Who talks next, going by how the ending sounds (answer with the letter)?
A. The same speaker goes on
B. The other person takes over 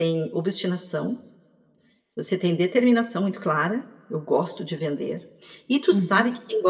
A